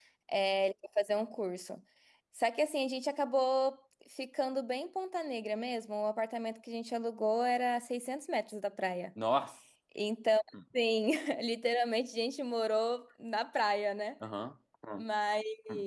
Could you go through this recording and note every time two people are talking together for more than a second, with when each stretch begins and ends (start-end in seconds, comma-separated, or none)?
none